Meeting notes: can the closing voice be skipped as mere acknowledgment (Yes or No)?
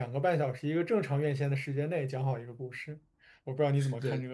No